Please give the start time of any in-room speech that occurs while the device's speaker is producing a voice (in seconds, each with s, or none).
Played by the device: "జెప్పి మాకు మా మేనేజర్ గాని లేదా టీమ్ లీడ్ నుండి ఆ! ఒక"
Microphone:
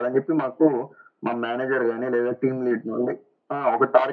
none